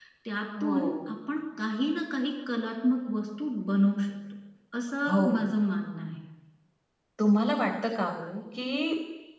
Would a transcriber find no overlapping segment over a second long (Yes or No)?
Yes